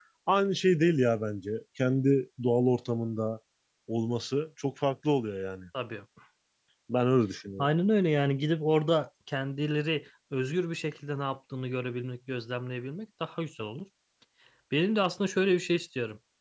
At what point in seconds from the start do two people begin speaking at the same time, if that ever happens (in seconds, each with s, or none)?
none